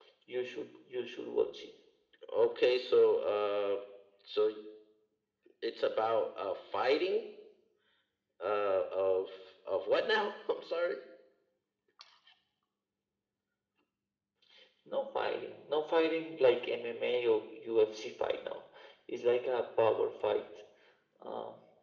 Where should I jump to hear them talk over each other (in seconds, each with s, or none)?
none